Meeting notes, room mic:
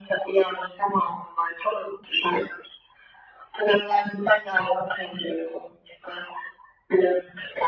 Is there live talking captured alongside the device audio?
No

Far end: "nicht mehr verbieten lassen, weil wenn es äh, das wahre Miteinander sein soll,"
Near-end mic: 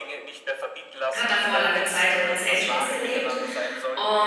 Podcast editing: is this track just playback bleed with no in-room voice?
No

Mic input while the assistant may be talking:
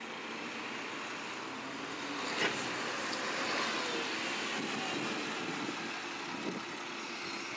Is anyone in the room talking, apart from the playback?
No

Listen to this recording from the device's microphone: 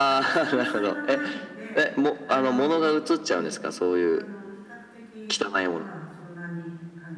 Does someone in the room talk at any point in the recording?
Yes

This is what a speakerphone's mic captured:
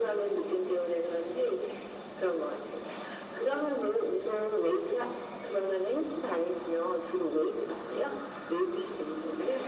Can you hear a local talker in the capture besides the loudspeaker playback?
No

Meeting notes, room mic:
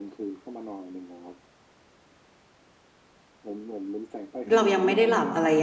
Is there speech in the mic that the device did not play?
Yes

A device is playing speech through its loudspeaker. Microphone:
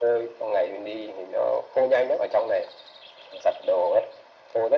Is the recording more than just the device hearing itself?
No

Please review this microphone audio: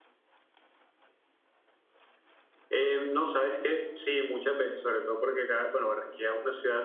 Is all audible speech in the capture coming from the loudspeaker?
Yes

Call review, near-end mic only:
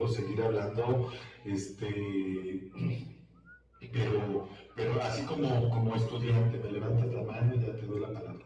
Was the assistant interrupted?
No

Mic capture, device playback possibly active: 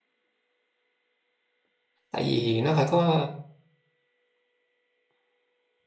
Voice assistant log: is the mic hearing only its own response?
No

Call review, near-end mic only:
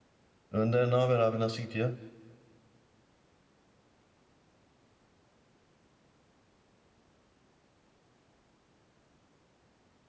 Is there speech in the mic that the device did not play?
Yes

